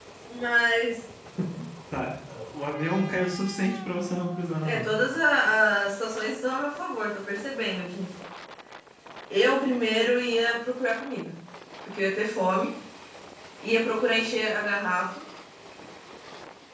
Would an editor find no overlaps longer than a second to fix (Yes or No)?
Yes